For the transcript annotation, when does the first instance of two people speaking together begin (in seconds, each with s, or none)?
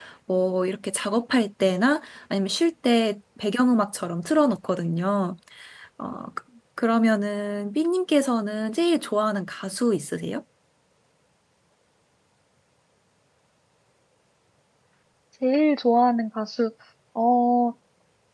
none